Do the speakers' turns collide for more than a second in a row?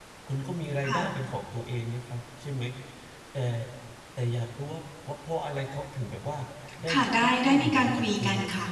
Yes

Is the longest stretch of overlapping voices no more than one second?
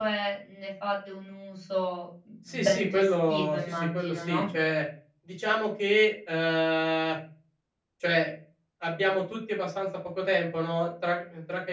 No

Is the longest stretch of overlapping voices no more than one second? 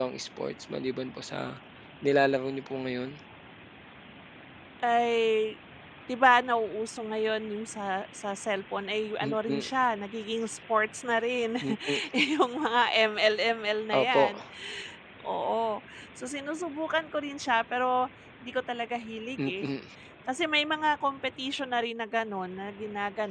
Yes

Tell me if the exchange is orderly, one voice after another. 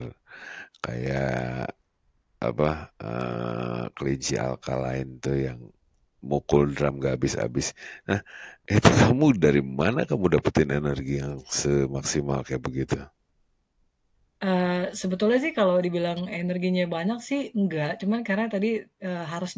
Yes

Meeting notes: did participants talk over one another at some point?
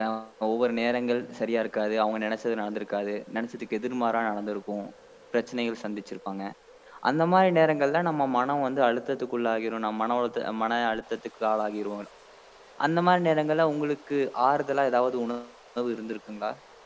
No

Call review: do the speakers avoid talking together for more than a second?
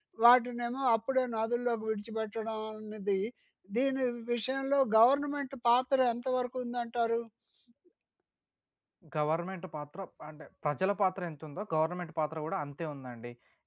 Yes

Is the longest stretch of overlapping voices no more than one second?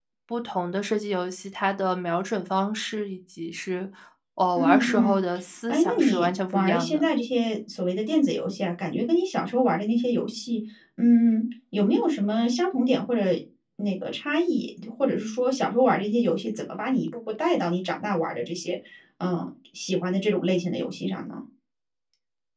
No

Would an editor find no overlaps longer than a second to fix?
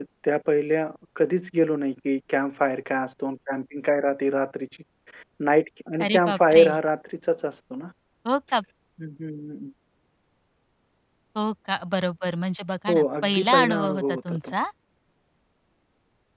No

